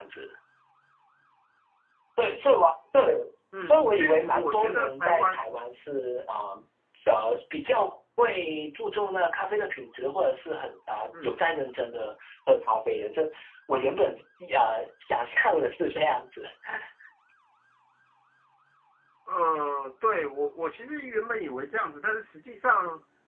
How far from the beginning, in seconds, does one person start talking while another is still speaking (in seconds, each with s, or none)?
3.7 s